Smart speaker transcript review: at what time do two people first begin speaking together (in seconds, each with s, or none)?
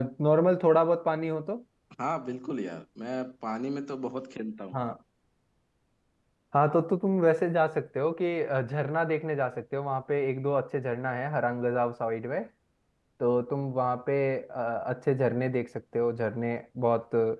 none